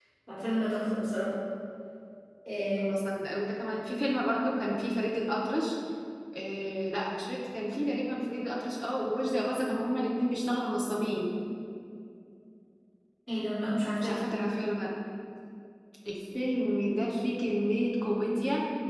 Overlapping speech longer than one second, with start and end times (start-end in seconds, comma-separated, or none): none